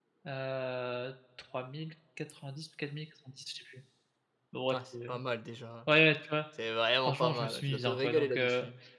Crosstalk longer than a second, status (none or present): present